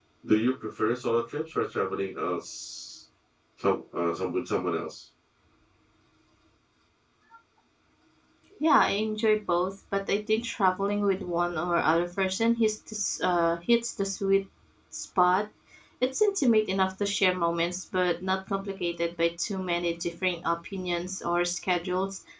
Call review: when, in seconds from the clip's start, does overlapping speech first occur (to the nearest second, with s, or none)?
none